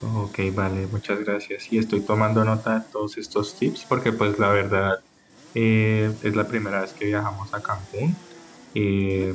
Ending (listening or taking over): listening